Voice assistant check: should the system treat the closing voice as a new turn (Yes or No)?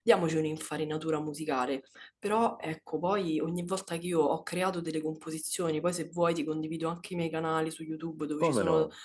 No